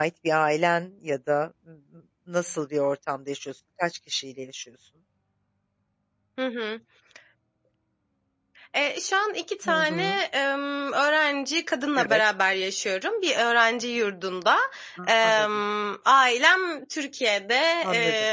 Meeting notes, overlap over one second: none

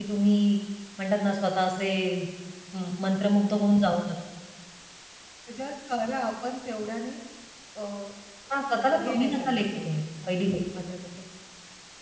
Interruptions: present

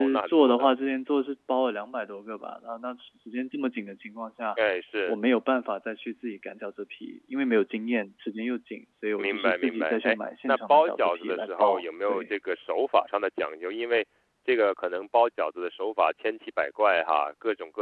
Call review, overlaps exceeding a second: present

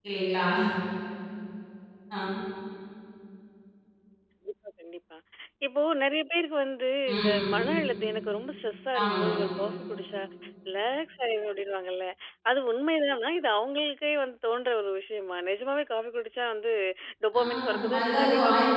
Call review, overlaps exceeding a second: present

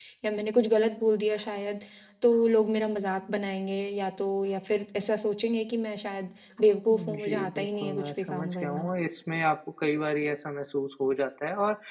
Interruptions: present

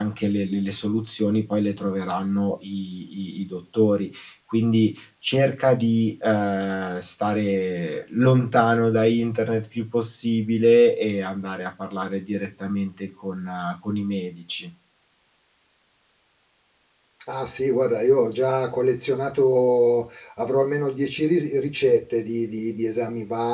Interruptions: none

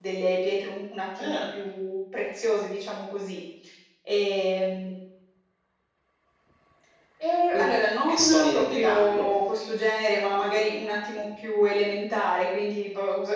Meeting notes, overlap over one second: present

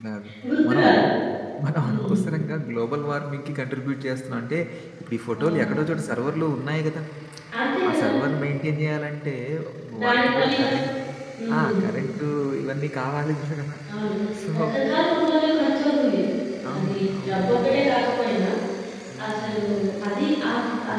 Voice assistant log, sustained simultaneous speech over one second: present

